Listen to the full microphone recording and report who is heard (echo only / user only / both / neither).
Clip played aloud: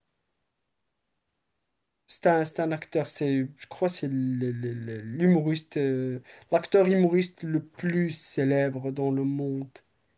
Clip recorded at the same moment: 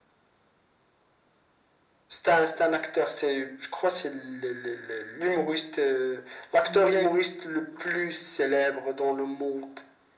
both